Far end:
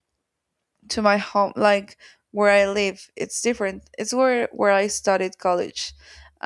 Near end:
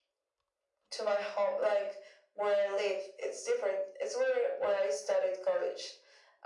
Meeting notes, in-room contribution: none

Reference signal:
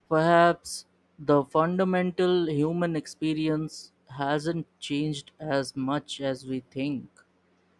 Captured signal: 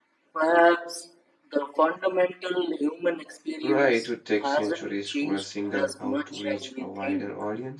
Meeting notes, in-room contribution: present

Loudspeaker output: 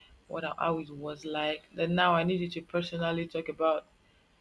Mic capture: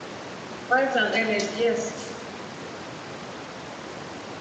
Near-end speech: present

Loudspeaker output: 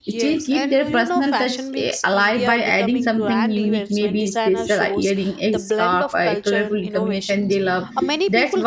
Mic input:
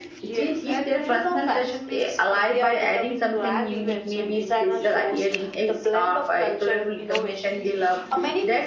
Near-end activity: none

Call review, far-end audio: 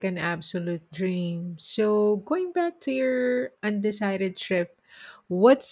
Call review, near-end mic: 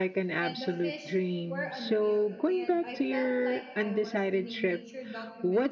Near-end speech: present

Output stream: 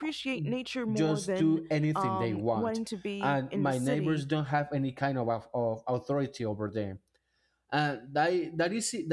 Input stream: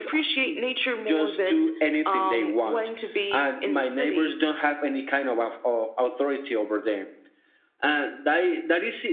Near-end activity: none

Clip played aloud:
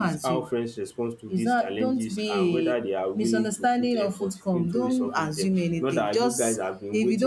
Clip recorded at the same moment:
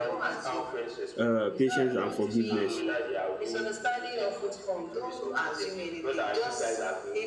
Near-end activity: present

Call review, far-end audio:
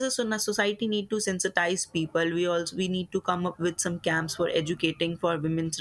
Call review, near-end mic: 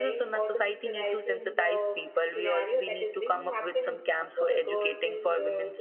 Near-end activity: present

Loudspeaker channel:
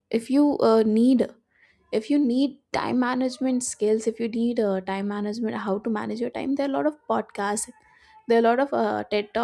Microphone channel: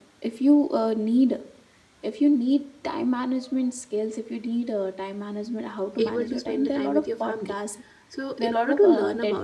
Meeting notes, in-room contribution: present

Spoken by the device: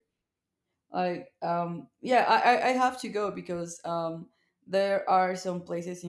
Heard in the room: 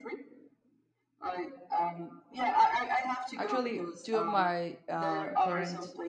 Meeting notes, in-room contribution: present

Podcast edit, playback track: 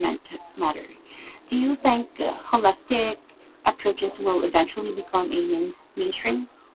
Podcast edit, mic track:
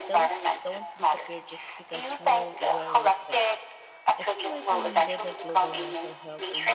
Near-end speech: present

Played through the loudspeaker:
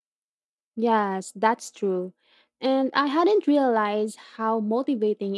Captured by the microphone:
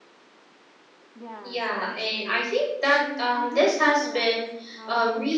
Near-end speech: present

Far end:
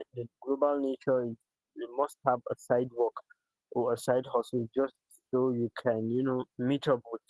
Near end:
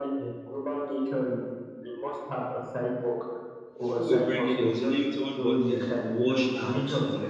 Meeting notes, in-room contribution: present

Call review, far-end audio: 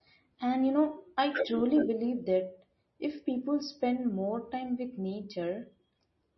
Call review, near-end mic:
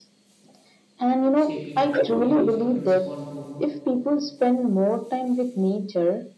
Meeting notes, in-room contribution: present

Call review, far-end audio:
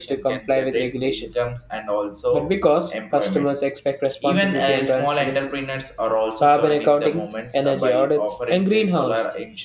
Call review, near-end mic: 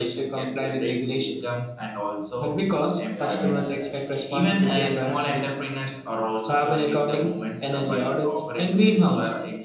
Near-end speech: present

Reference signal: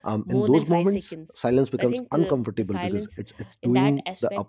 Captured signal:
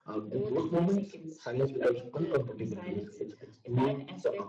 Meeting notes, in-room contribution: none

